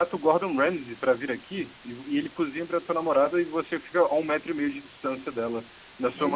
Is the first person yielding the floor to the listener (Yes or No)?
Yes